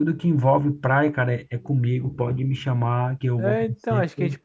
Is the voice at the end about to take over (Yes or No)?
Yes